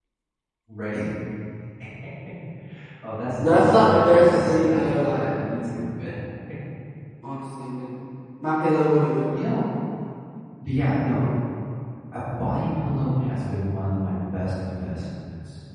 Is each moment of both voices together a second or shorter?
No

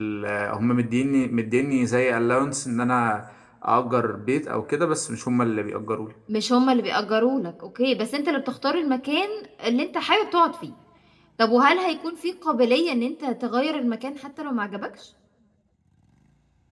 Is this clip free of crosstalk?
Yes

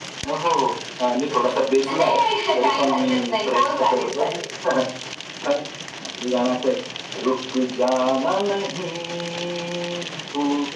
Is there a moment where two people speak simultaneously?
Yes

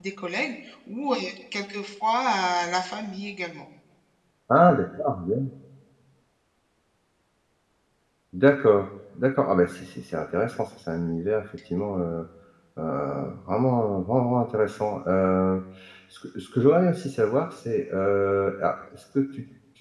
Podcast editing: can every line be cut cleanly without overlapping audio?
Yes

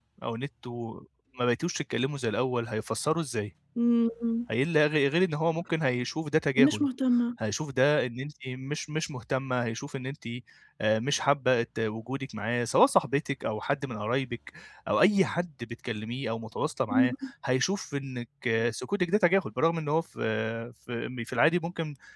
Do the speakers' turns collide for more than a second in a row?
No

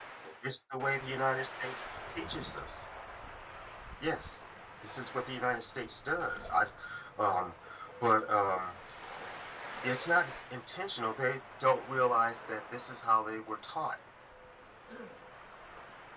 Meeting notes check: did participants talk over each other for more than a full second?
No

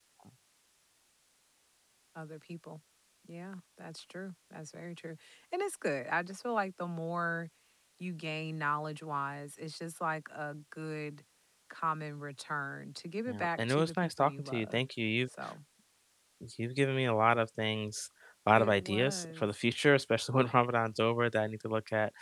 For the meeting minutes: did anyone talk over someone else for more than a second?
Yes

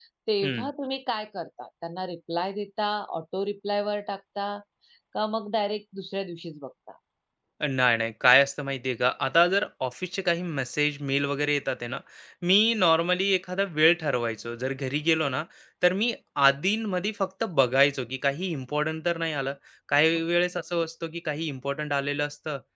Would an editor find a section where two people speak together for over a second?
No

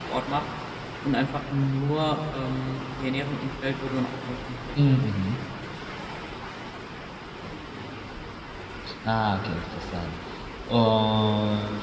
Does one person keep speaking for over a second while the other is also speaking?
No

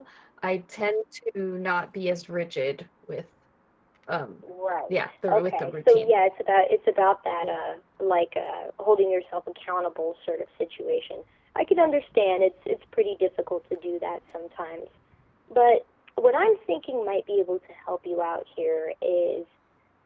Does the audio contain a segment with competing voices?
Yes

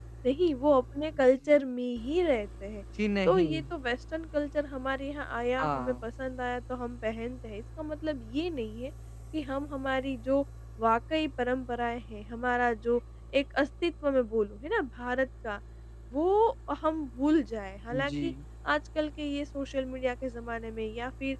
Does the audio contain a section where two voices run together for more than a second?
No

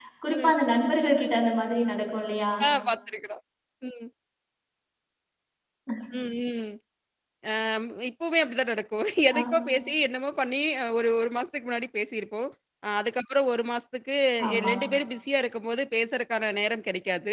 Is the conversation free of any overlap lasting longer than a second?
Yes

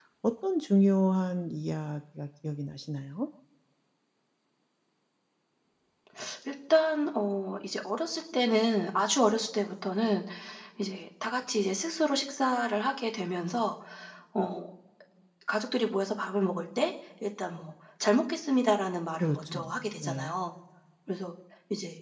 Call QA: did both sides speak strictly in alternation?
No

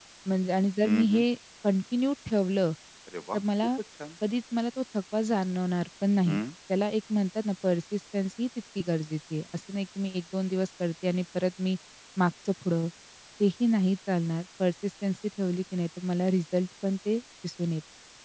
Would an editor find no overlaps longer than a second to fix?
Yes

